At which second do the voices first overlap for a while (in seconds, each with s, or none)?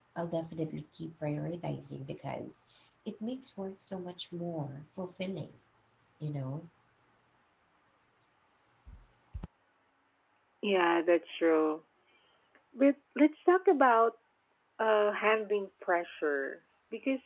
none